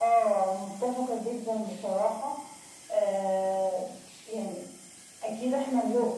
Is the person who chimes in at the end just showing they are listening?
Yes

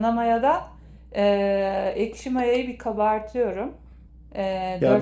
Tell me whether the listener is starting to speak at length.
Yes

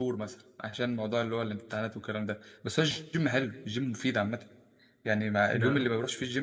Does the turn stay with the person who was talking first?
Yes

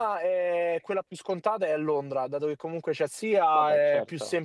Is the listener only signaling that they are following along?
Yes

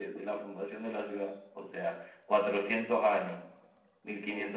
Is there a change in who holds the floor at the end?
No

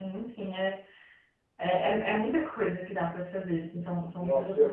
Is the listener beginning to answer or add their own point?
Yes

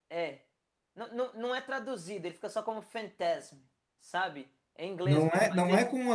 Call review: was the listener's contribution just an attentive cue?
No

